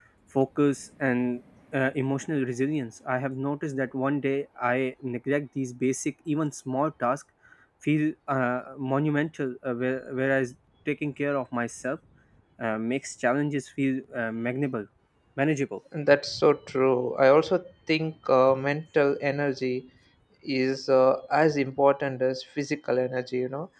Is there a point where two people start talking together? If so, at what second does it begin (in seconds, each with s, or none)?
none